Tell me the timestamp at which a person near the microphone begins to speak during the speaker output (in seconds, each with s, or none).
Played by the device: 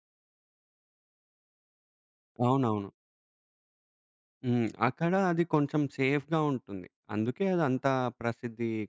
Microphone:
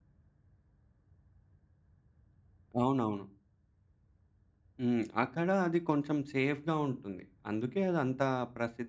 none